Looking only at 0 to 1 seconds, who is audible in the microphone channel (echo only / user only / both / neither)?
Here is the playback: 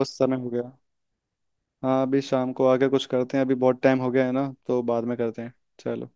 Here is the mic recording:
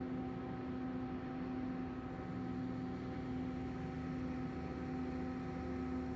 neither